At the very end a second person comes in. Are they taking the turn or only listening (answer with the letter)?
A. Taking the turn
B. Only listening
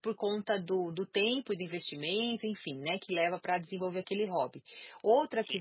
B